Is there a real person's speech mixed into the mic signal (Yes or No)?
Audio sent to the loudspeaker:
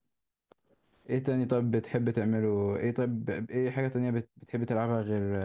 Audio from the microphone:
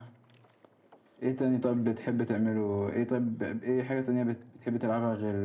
No